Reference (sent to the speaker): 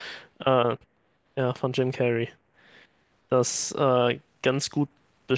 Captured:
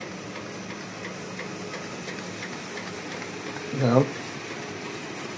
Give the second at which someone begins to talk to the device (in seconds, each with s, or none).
3.7 s